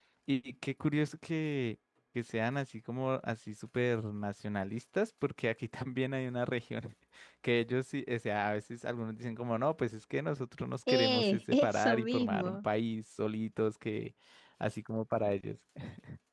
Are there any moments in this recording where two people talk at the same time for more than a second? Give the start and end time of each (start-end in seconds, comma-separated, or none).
10.9-12.6